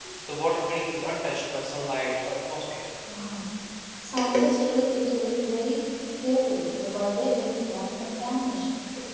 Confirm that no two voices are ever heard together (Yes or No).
Yes